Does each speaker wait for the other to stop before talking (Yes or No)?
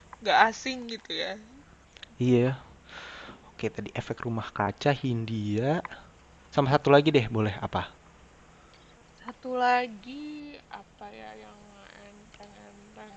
Yes